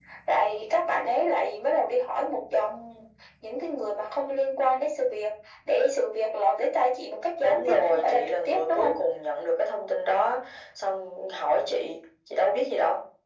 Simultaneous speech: Yes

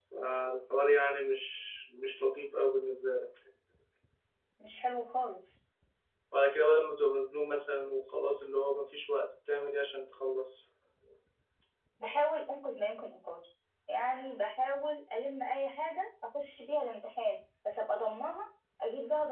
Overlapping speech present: No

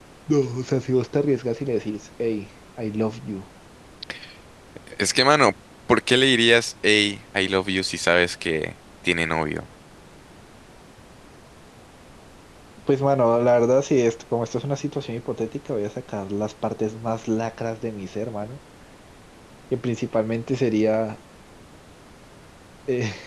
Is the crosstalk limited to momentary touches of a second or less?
Yes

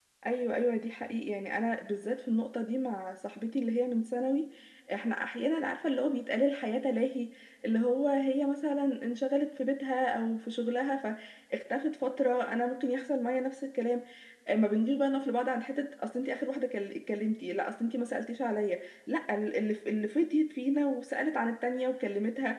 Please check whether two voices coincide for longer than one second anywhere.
No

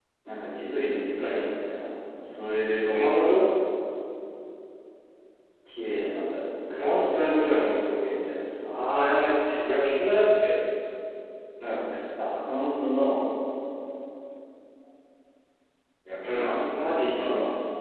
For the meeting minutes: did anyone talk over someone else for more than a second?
Yes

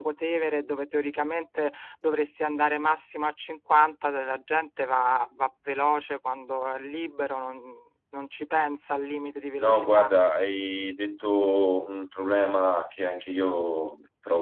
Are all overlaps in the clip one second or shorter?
Yes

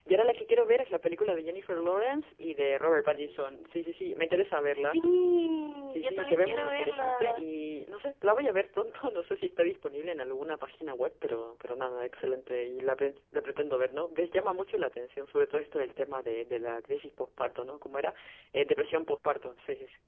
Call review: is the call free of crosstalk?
No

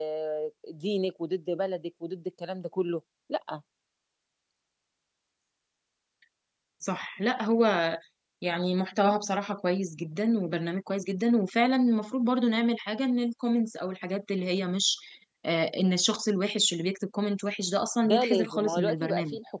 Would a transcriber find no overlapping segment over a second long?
No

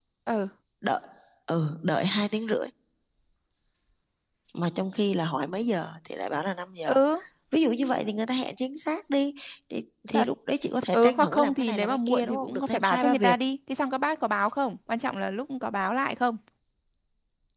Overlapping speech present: Yes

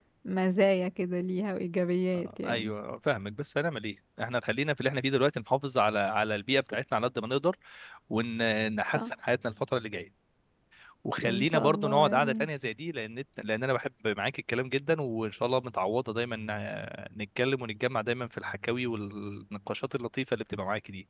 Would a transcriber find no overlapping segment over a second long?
No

